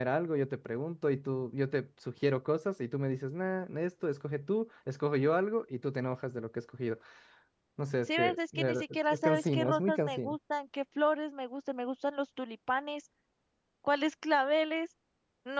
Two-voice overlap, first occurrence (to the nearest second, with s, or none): 8 s